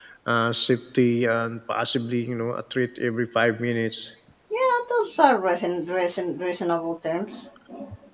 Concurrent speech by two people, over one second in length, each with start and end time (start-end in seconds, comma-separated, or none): none